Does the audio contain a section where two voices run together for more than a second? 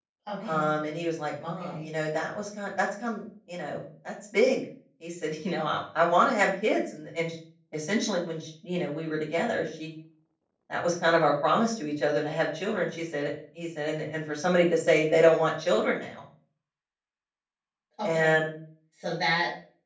No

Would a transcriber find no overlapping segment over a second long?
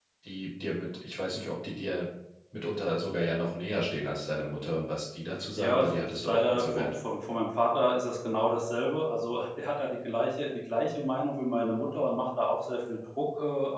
No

